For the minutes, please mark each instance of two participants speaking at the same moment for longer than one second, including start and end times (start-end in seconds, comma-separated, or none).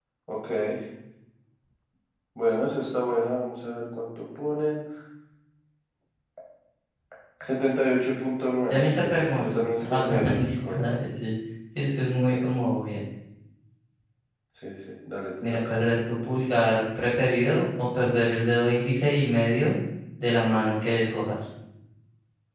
8.7-10.8